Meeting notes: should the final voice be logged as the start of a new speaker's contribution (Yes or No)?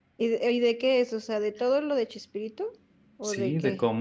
Yes